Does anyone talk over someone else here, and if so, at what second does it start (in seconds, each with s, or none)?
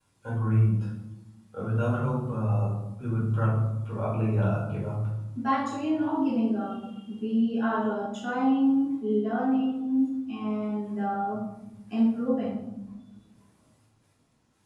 none